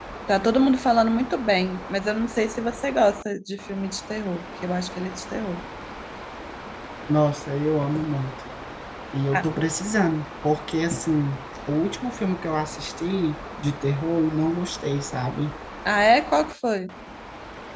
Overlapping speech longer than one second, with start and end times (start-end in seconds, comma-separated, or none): none